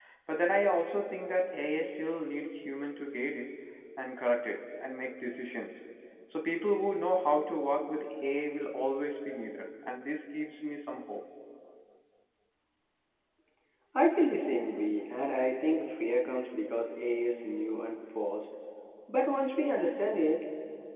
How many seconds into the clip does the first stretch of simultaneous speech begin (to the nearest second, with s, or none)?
none